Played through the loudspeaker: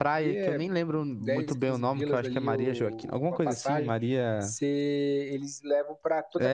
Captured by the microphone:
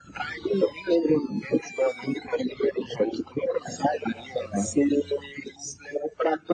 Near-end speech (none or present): none